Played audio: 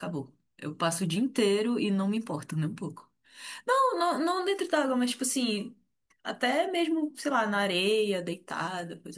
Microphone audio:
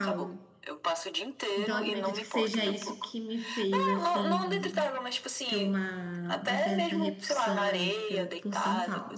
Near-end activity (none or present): present